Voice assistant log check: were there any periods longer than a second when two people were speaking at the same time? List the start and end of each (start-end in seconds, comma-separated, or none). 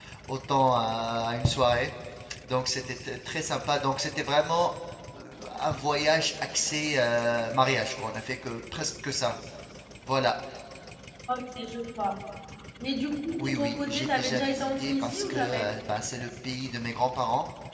13.4-15.7